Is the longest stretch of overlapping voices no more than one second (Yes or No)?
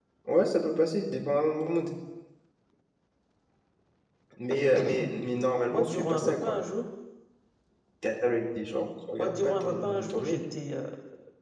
No